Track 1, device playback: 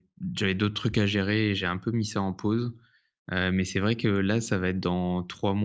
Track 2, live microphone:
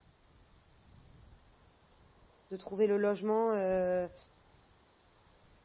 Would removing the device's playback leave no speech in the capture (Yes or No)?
No